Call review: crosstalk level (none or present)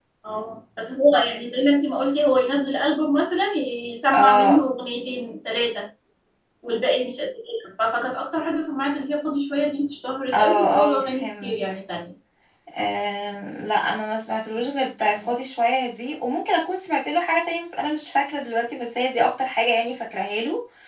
present